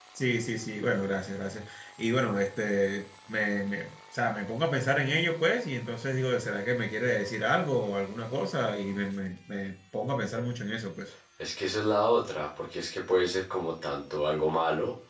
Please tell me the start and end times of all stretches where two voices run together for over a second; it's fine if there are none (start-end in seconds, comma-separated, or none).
none